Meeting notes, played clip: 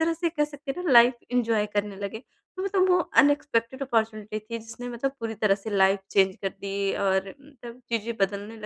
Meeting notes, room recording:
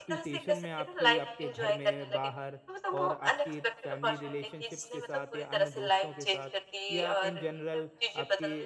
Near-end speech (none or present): present